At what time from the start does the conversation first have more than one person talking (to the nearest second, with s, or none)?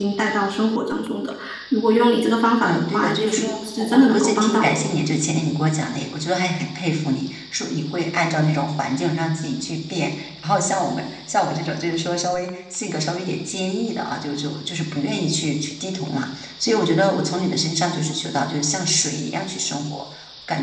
3 s